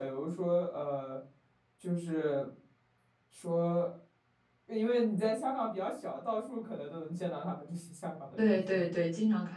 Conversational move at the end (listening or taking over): taking over